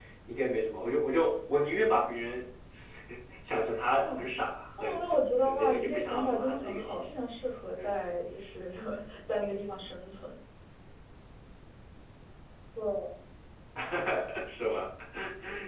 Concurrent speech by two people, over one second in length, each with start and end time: 4.8-7.0

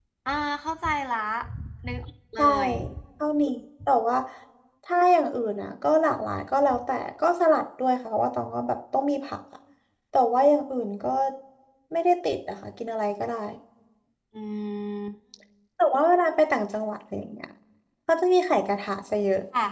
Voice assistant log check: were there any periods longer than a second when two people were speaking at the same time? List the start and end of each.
none

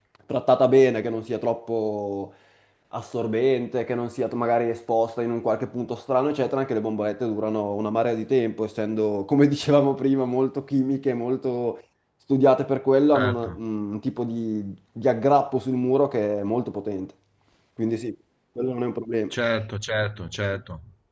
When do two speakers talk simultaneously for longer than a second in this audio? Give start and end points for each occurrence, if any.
none

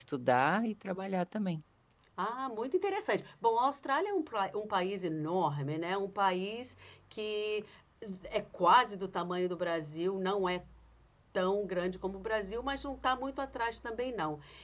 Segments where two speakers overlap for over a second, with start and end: none

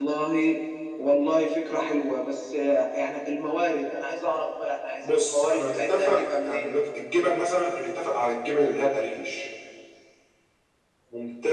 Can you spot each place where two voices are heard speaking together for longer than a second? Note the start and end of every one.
5.0-6.7

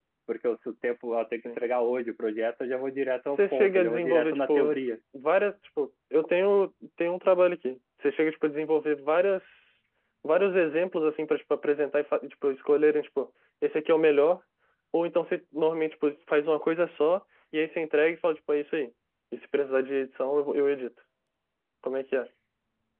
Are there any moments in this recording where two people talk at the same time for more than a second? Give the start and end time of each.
3.3-4.7

